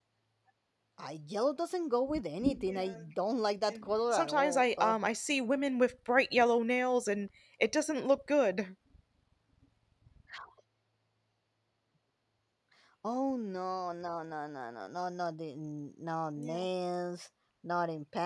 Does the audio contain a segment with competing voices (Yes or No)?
Yes